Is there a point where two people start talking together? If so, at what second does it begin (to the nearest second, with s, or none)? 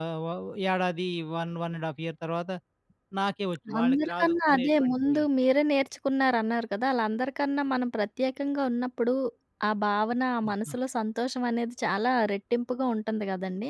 4 s